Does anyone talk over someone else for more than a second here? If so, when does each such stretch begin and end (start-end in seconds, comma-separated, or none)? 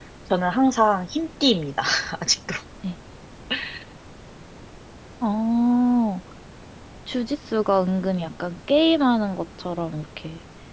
none